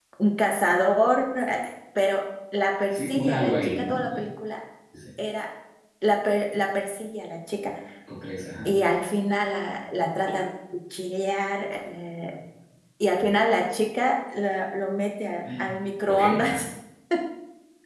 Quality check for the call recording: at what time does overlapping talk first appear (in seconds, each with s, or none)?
2.9 s